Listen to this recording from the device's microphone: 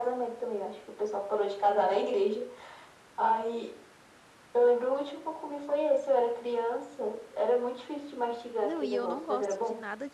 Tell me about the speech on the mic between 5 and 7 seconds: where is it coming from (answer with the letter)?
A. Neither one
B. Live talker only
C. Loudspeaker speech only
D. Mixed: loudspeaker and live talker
C